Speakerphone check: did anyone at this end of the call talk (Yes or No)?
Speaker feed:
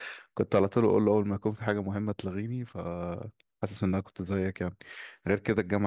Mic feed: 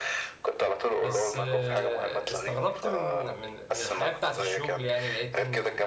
Yes